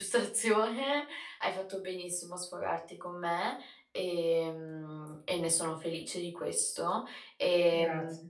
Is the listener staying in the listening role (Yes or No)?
Yes